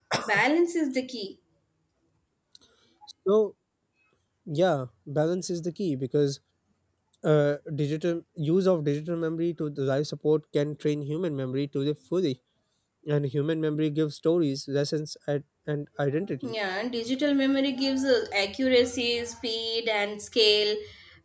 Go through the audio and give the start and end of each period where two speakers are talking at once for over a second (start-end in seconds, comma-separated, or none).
none